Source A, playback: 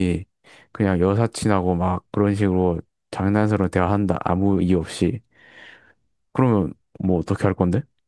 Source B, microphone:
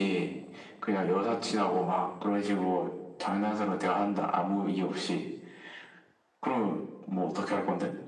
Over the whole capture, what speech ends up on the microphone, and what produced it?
both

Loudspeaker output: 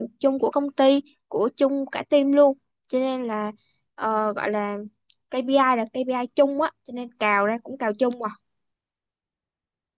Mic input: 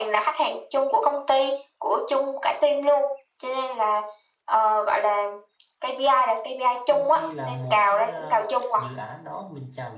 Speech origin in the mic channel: both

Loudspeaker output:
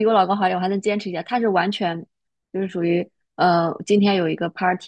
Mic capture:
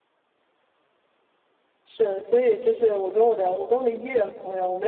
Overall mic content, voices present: user only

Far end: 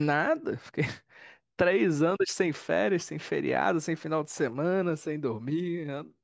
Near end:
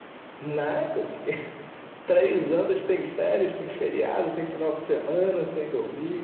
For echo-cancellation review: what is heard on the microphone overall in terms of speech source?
echo only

